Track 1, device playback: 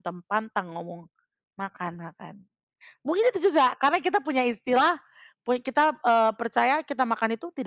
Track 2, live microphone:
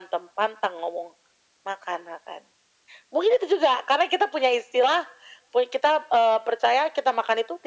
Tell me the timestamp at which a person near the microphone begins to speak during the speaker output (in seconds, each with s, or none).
none